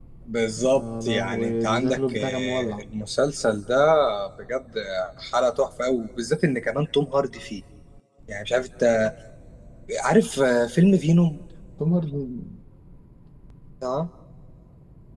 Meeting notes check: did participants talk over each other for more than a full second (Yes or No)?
Yes